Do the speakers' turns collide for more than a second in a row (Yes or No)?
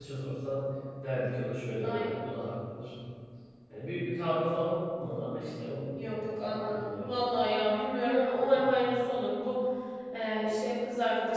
Yes